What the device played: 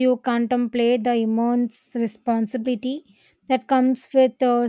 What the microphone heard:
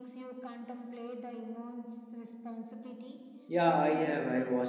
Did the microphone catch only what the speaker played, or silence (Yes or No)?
No